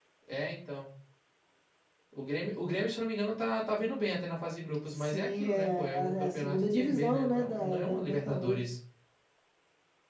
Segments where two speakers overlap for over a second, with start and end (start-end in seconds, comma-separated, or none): 4.9-8.6